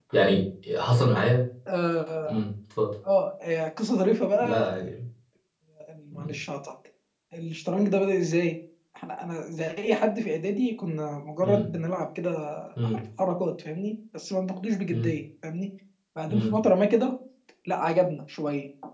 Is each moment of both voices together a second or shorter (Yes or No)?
Yes